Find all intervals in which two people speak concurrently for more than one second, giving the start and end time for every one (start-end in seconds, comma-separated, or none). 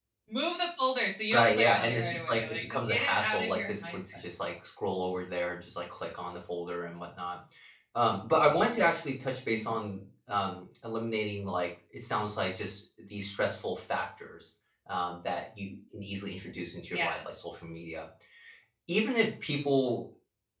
1.3-4.2